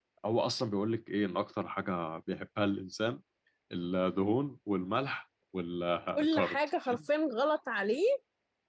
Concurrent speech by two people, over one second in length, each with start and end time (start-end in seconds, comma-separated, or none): none